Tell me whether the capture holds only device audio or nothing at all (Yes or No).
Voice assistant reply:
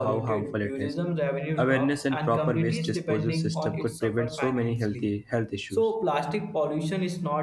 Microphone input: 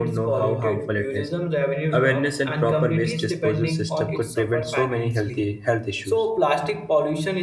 Yes